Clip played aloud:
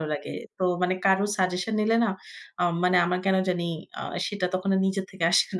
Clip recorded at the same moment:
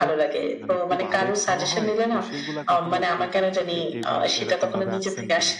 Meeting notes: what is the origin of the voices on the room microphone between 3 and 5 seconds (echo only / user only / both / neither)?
both